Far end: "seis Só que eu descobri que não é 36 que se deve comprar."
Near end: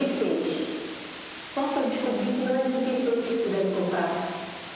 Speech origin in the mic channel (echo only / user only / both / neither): echo only